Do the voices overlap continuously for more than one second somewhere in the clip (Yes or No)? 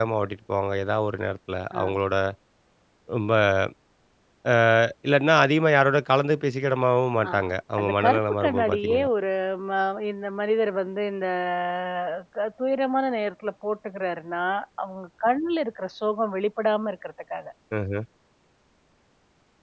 Yes